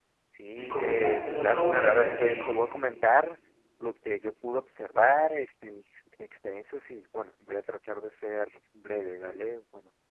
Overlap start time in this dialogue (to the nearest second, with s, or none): 1 s